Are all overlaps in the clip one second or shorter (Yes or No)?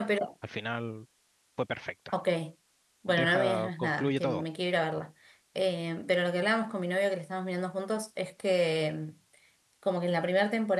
No